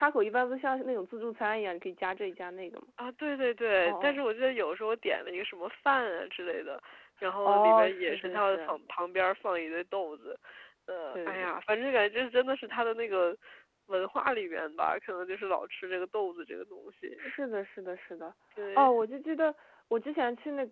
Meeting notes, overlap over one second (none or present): present